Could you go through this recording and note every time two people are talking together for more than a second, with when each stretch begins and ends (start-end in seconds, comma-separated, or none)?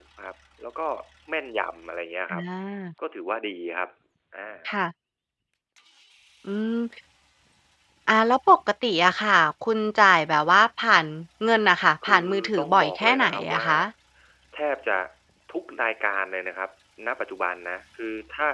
12.0-13.6